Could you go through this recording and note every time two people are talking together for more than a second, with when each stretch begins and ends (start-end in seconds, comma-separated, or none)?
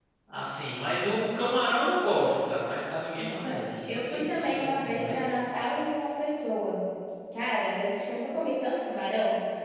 3.9-5.3